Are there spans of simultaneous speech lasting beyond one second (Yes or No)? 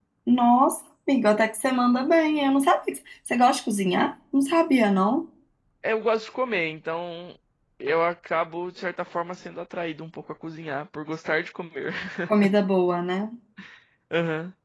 No